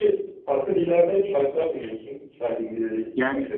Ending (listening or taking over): taking over